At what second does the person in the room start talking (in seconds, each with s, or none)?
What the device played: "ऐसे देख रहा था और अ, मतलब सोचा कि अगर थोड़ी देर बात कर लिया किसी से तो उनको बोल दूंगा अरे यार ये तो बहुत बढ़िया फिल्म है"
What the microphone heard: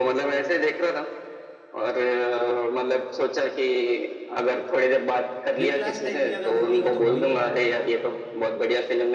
5.6 s